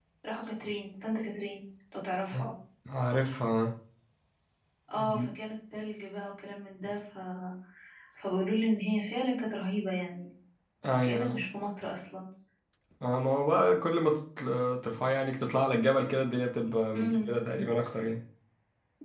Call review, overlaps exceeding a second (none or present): none